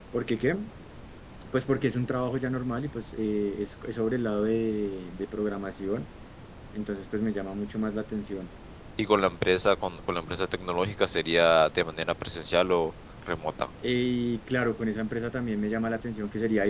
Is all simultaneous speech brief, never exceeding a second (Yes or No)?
Yes